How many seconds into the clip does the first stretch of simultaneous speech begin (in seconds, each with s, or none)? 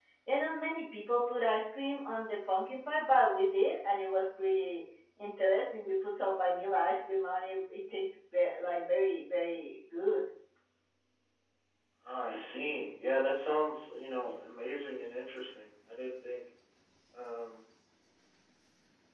none